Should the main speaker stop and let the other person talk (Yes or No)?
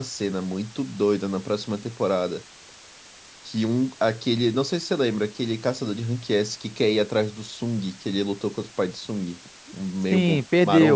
Yes